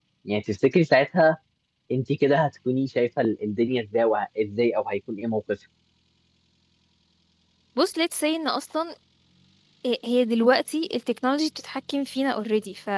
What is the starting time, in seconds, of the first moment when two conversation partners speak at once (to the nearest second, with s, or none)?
none